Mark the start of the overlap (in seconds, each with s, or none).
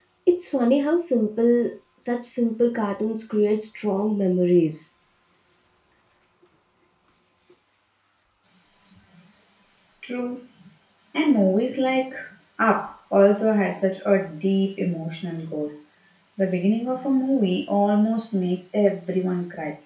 none